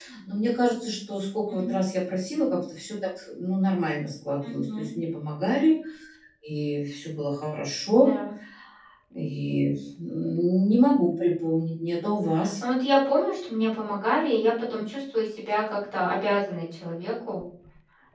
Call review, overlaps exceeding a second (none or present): none